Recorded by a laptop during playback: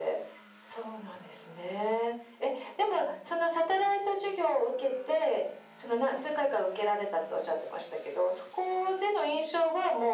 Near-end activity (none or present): none